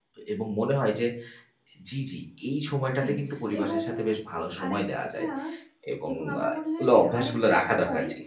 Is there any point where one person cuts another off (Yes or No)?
Yes